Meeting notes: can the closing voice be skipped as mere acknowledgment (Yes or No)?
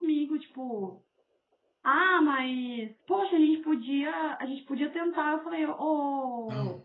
Yes